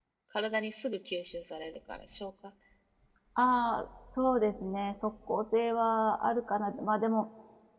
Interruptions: none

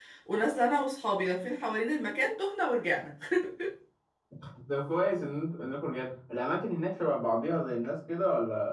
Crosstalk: none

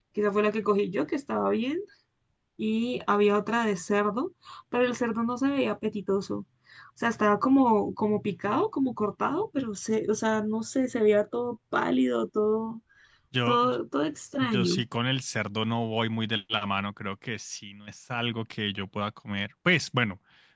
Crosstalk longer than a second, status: none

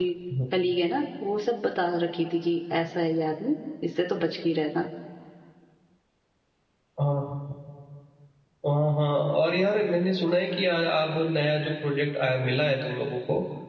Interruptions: none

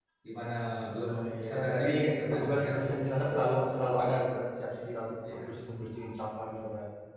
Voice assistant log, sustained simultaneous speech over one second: present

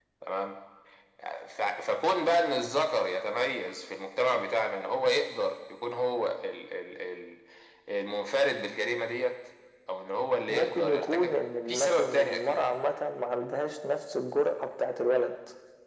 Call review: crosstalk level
present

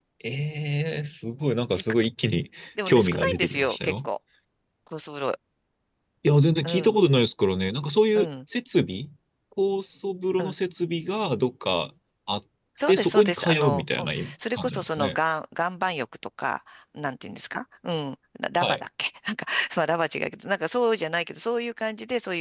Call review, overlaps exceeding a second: present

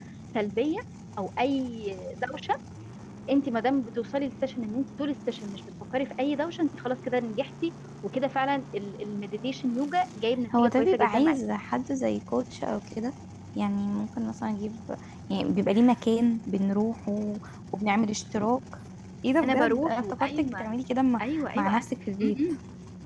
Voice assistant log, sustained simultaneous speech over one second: present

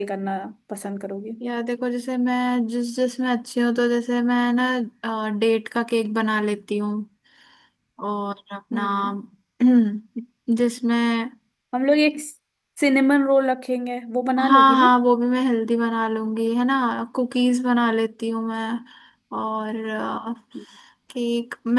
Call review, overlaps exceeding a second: none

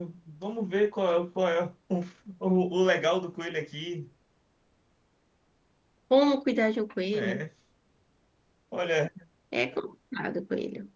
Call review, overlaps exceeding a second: none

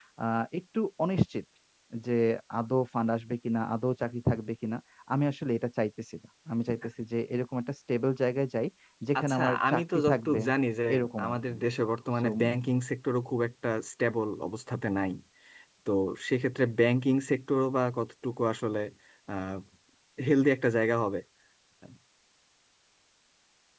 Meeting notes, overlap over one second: present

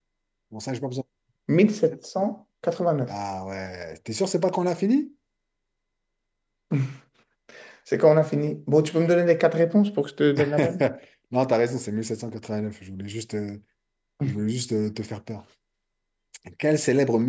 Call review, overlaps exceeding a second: none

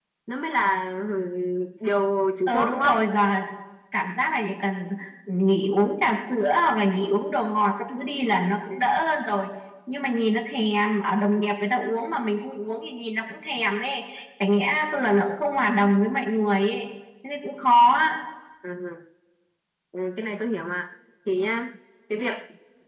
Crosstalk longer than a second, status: none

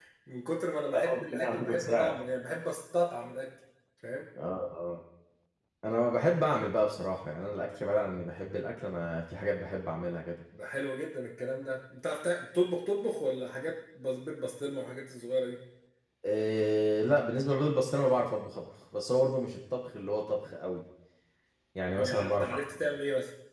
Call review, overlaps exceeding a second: present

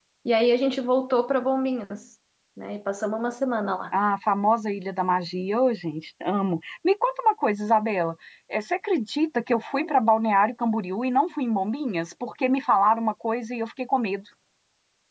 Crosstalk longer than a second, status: none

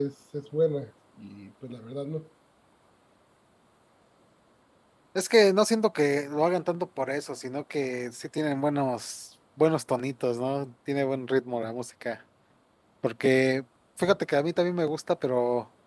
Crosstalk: none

